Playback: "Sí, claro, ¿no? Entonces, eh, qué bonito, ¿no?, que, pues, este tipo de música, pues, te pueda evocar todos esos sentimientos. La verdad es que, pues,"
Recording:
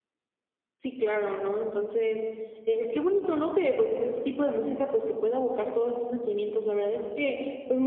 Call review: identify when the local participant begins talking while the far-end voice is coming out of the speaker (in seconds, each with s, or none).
none